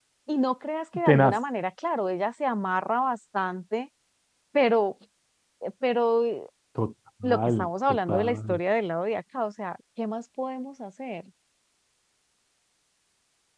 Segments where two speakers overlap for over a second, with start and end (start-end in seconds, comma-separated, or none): 7.2-8.6